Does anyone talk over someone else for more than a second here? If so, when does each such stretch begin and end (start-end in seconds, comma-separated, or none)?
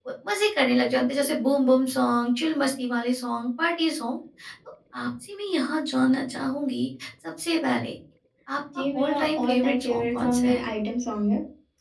8.8-10.6